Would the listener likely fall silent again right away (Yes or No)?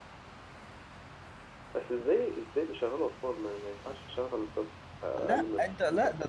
No